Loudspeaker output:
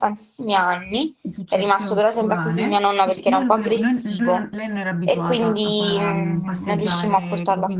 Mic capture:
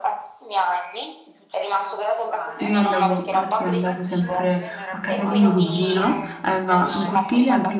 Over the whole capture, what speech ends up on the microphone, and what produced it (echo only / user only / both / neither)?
both